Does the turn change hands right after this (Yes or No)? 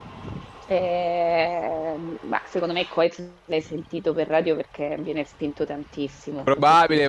Yes